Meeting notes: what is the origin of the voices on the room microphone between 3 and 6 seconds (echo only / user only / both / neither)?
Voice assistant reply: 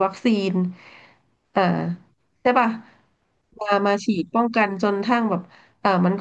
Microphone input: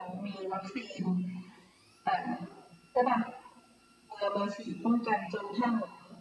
echo only